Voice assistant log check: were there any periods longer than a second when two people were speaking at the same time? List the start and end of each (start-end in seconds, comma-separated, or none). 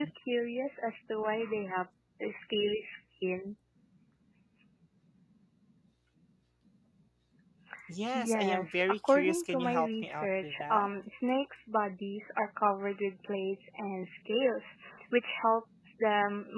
8.1-10.9